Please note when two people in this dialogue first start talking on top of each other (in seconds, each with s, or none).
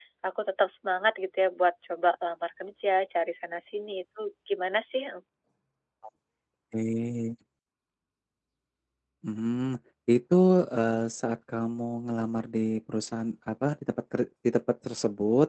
none